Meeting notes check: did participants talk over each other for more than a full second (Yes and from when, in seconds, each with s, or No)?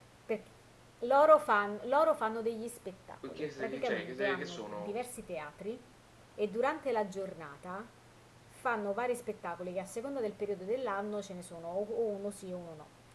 Yes, from 3.2 s